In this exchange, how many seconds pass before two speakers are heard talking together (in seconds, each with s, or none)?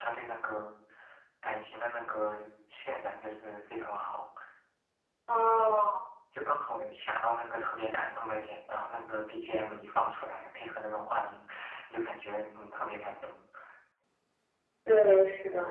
none